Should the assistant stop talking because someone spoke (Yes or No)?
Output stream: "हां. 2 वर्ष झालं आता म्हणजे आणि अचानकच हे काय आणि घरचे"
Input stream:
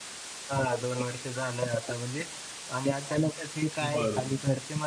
Yes